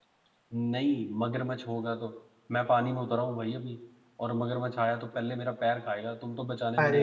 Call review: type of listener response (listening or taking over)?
taking over